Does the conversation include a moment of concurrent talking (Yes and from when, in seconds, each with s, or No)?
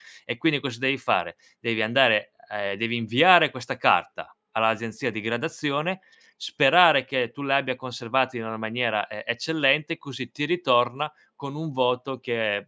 No